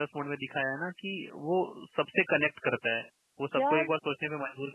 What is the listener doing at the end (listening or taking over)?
listening